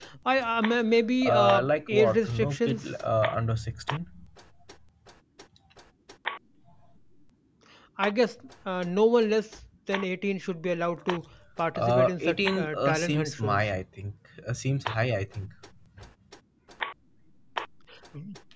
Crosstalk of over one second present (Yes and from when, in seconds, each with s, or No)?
Yes, from 1.2 s